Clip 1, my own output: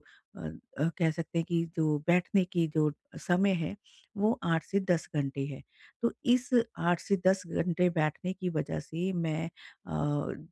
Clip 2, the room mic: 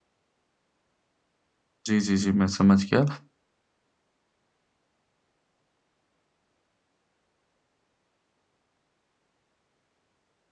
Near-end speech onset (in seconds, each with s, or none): 1.9 s